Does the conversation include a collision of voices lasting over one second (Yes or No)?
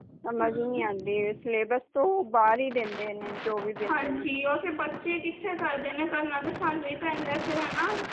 No